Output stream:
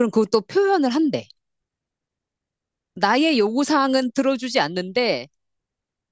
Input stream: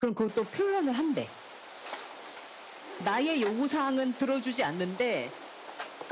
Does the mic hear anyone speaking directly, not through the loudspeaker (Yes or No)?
No